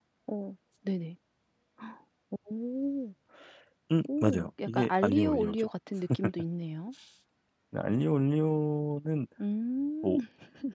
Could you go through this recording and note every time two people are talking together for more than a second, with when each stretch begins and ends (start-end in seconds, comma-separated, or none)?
4.1-5.7